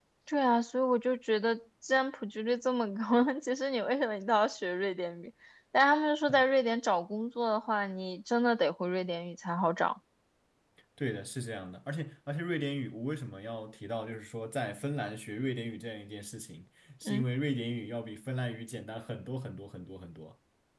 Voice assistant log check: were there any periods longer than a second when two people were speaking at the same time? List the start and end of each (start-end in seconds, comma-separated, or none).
none